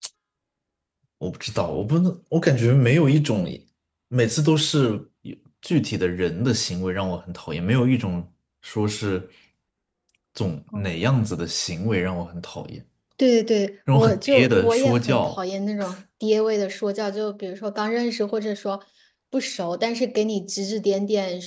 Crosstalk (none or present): present